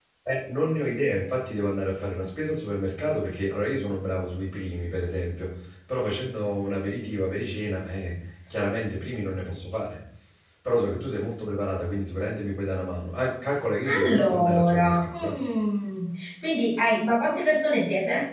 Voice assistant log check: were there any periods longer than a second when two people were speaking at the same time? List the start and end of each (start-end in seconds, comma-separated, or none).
13.8-15.3